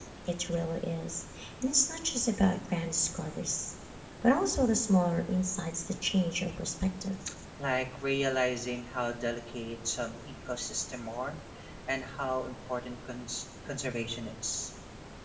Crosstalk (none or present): none